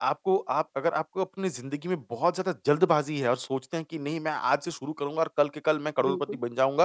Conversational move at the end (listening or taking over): listening